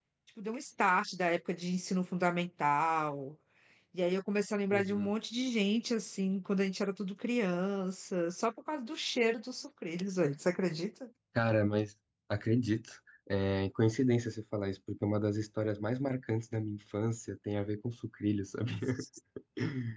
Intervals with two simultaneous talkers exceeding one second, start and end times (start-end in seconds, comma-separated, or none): none